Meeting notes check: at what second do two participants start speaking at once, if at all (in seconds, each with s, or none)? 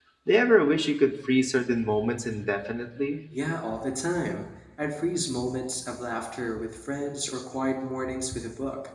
none